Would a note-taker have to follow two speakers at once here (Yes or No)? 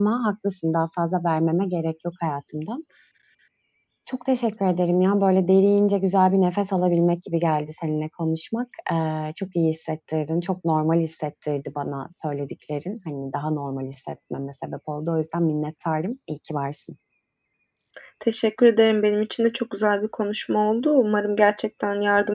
No